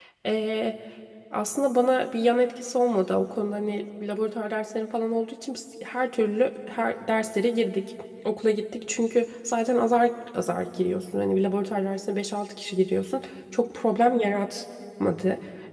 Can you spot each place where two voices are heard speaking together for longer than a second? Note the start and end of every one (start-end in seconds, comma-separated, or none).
none